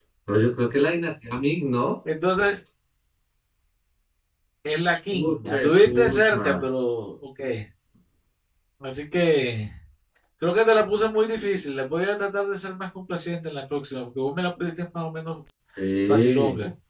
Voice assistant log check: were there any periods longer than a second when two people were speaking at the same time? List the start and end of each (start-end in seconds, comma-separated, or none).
5.2-6.4